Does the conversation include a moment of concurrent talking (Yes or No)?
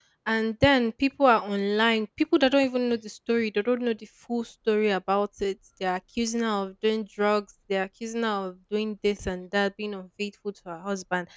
No